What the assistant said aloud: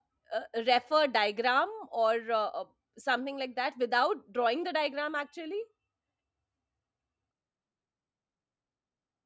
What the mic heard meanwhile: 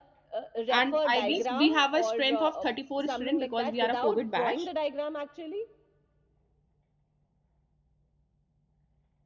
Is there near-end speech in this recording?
Yes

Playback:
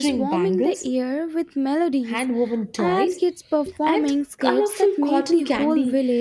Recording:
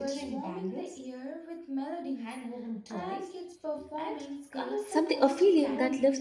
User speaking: Yes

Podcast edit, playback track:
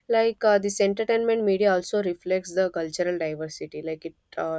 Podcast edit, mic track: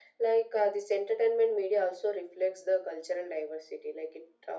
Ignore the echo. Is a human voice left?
No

